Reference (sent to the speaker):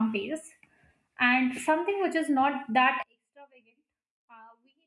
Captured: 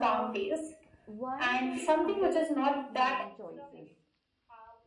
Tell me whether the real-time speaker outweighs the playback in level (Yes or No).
No